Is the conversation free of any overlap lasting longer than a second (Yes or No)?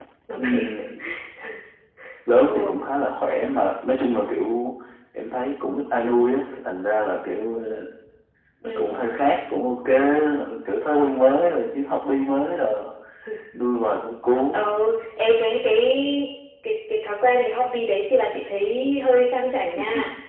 Yes